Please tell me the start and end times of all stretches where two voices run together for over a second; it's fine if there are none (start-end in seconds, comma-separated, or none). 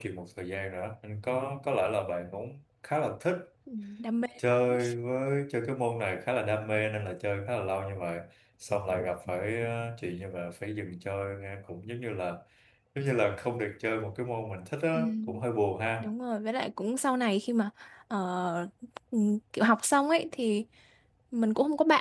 none